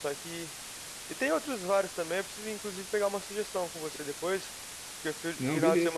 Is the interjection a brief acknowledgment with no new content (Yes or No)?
Yes